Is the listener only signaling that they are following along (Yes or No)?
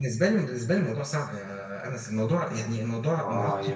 No